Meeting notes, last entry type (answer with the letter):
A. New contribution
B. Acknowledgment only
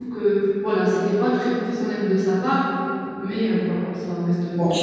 A